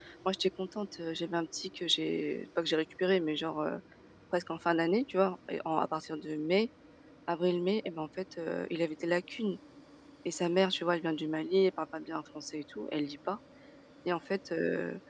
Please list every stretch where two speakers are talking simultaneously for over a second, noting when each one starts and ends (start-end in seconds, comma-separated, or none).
none